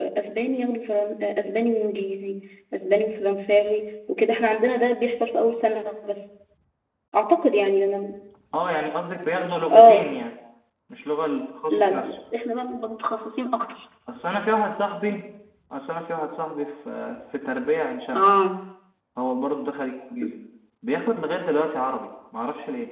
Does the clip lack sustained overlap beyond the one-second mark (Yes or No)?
Yes